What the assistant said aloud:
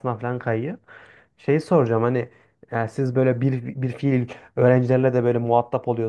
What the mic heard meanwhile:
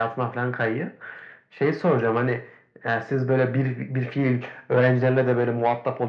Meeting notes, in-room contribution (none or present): none